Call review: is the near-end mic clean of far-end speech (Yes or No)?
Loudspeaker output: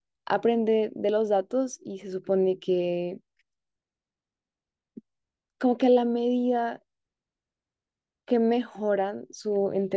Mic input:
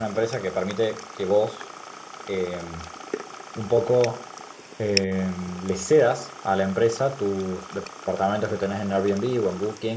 Yes